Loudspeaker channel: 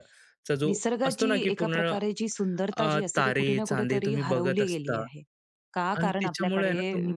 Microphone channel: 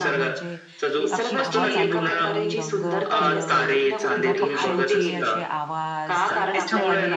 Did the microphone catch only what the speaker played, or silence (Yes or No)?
No